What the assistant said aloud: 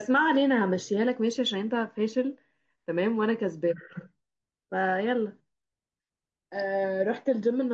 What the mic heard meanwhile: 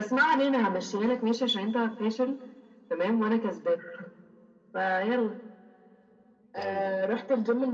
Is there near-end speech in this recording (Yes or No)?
Yes